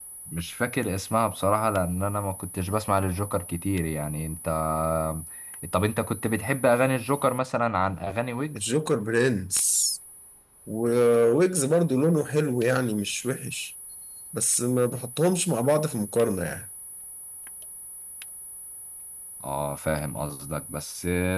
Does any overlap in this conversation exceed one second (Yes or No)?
No